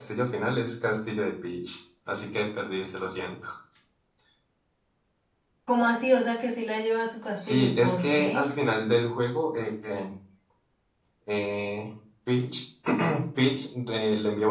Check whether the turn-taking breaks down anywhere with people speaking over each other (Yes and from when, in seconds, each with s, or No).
Yes, from 7.3 s